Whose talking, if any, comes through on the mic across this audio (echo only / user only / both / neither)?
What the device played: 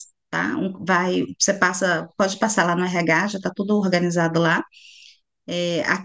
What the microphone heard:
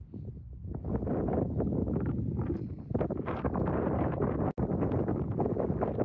neither